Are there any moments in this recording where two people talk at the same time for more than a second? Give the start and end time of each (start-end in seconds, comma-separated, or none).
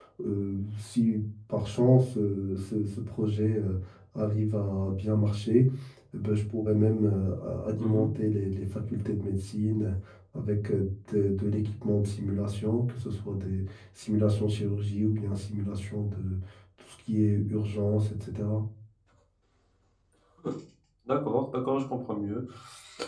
none